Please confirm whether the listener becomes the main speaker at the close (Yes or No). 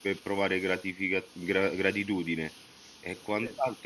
No